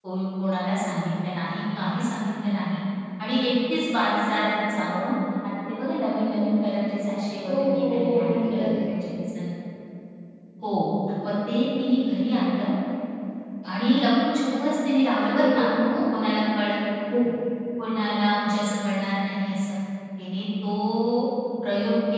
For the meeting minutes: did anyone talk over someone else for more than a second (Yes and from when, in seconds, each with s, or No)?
Yes, from 7.5 s